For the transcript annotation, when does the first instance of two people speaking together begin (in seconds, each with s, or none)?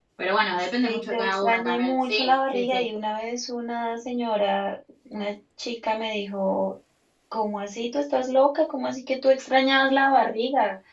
0.8 s